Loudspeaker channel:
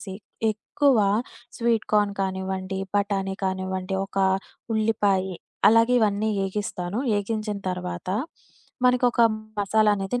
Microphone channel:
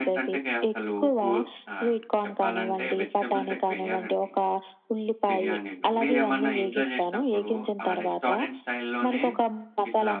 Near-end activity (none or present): present